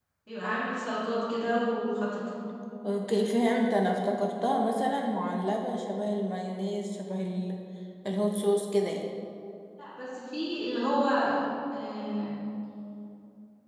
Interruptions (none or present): none